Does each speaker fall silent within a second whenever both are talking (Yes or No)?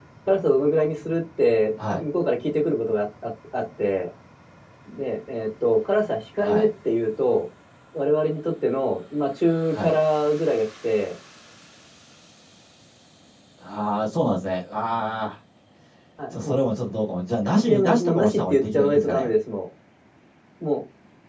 No